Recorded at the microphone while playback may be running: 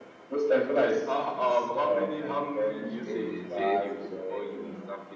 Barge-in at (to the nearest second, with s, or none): 3 s